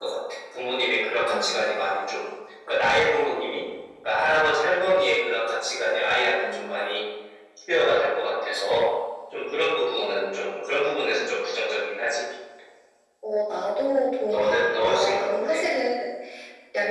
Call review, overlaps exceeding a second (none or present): present